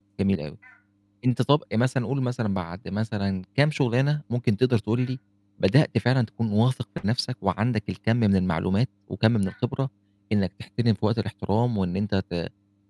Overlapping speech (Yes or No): No